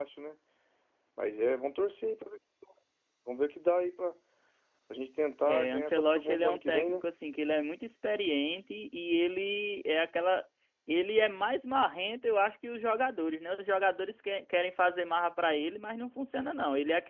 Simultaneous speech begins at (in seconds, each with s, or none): 5.5 s